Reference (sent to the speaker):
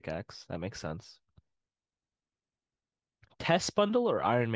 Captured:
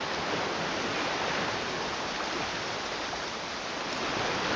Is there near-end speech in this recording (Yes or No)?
No